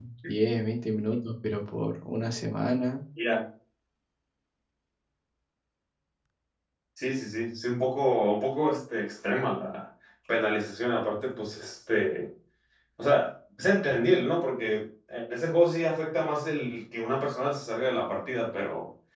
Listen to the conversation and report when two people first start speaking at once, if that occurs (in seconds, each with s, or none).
none